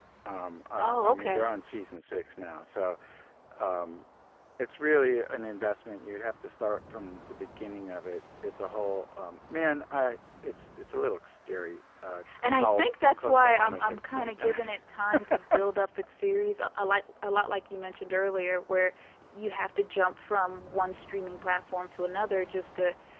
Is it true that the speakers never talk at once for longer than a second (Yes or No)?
No